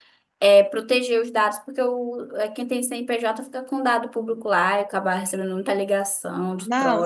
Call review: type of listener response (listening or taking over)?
taking over